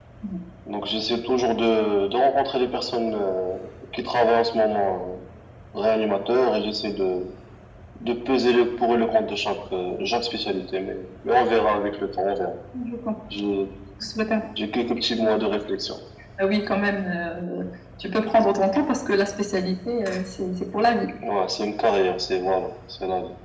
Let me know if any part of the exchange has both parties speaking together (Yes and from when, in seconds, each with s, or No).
No